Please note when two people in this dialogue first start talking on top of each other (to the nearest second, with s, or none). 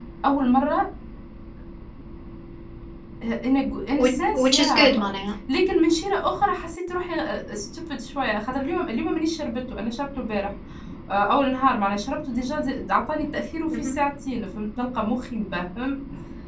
4 s